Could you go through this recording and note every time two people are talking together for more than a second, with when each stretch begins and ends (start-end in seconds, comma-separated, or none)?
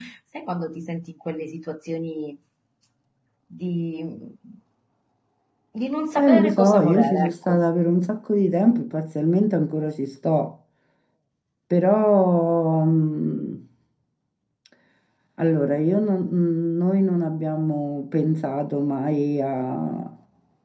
6.2-7.6